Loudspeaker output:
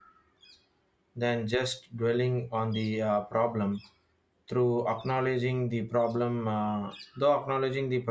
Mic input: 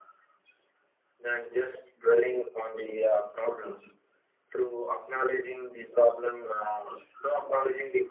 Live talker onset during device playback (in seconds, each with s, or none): none